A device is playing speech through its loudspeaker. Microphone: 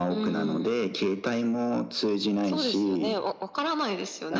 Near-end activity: none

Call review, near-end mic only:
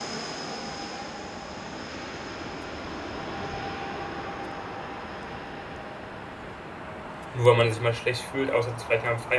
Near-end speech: present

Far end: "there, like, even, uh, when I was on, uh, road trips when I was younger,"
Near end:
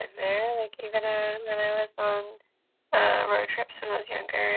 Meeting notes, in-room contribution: none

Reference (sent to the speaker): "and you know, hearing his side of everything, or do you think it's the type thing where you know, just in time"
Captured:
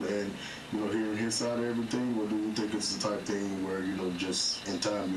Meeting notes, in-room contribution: none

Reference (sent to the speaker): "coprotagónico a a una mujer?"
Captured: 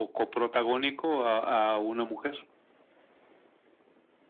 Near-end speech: none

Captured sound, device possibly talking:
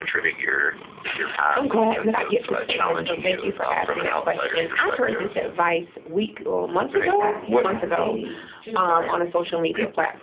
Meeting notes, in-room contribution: present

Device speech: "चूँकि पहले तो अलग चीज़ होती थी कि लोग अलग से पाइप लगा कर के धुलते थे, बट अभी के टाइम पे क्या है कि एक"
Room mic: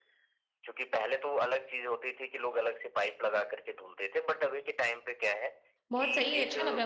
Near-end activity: present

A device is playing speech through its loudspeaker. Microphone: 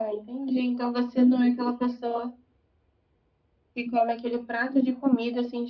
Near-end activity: none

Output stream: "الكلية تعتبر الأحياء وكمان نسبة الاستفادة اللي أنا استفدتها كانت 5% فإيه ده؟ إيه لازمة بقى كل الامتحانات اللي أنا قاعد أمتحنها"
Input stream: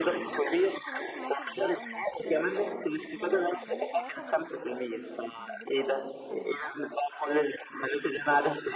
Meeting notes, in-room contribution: present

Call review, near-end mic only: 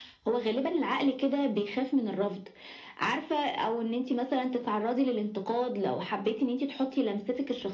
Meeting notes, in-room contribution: present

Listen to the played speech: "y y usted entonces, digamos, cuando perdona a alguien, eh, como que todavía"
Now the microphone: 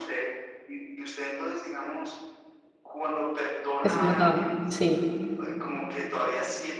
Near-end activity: present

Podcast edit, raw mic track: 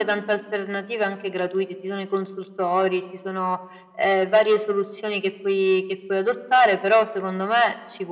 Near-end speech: none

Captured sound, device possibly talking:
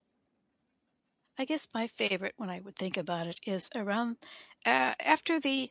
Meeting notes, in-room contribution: present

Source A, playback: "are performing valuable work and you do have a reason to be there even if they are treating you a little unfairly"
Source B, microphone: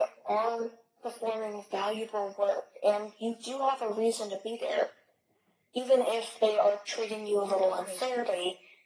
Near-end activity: present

